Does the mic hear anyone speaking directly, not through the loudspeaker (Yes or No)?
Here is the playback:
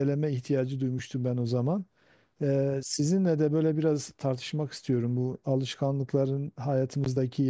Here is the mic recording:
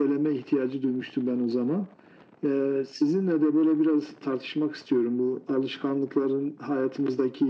No